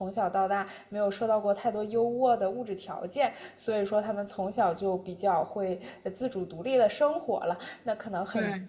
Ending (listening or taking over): listening